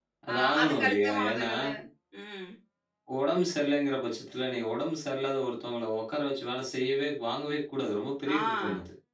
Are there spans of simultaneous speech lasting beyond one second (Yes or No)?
Yes